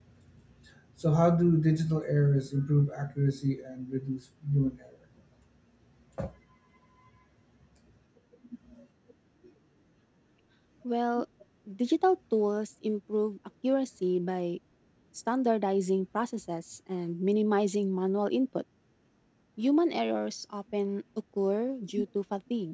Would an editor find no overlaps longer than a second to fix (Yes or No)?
Yes